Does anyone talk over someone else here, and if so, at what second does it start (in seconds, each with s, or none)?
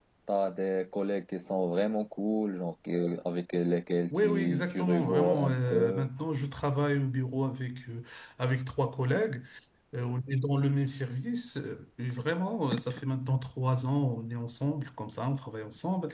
4.1 s